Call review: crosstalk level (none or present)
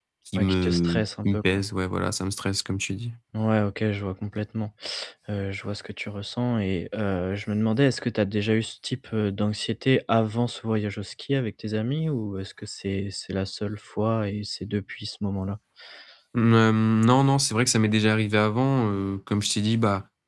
present